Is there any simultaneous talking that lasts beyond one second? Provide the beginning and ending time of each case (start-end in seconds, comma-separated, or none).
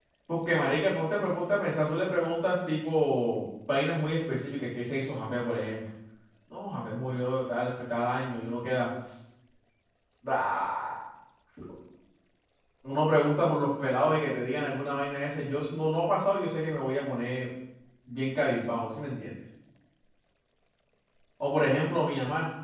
none